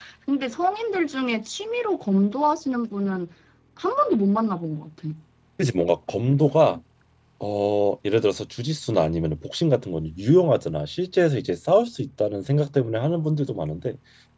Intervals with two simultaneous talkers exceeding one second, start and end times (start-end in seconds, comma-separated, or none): none